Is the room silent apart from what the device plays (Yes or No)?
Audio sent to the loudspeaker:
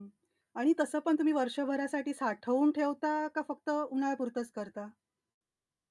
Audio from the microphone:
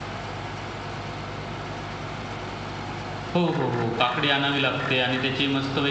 No